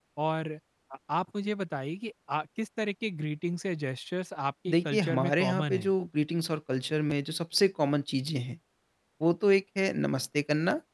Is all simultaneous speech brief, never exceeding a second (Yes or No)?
No